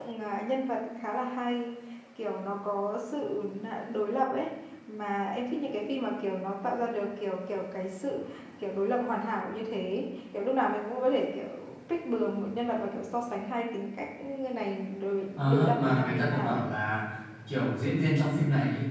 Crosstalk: present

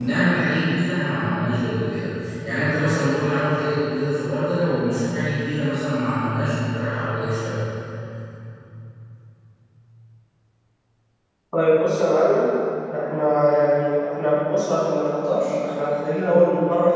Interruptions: none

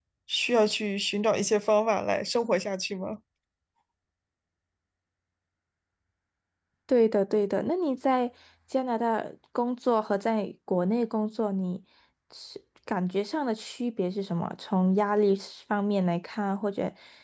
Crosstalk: none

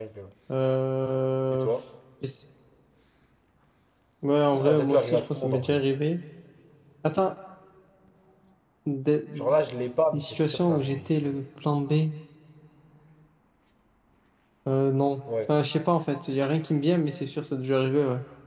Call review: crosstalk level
present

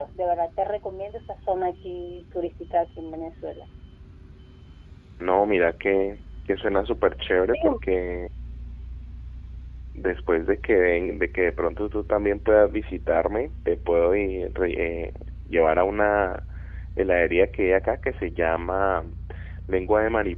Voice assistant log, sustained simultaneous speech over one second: none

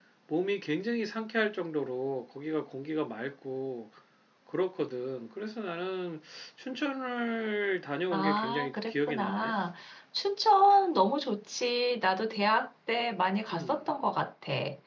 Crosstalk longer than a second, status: present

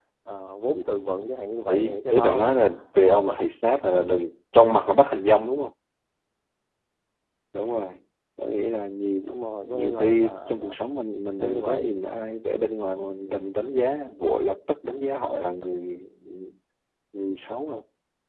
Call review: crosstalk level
present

